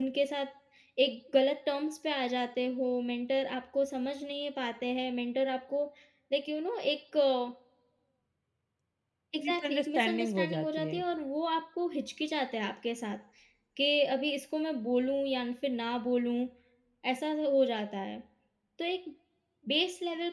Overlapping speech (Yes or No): Yes